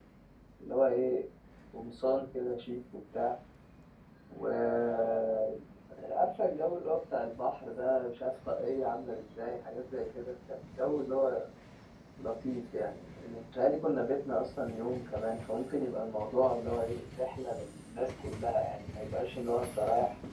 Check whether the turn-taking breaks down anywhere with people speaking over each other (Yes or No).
No